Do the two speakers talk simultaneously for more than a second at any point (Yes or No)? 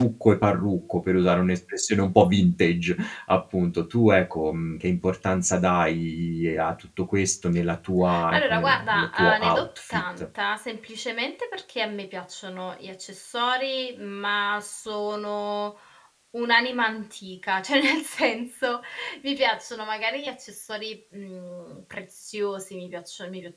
Yes